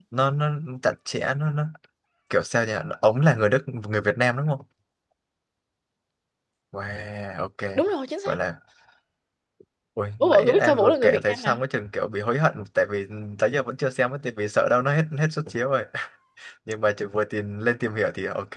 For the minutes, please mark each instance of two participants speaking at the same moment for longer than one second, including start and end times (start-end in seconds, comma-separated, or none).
10.2-11.6